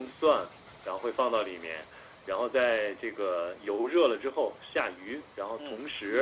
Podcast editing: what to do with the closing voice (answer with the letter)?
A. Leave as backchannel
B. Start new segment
A